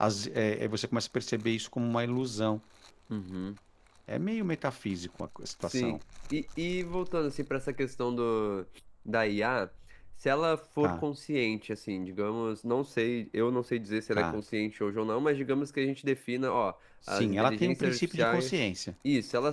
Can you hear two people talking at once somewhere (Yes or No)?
Yes